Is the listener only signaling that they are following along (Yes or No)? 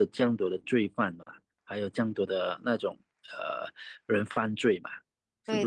No